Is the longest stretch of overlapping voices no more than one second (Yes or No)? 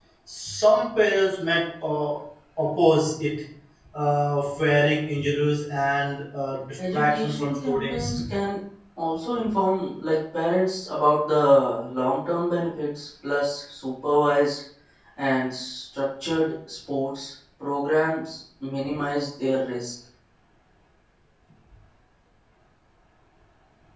No